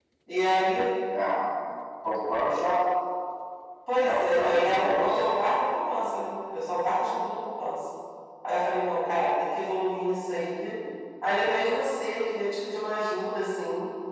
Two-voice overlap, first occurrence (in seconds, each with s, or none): 4.0 s